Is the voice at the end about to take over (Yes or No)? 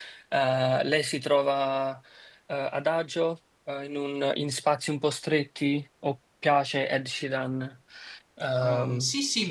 Yes